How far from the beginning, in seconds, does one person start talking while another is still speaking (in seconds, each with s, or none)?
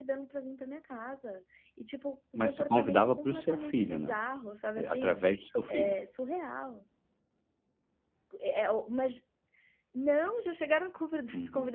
2.4 s